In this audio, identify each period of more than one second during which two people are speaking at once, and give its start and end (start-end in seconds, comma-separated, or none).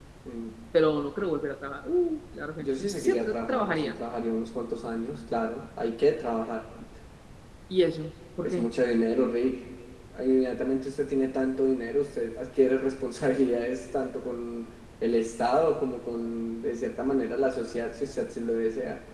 2.6-4.0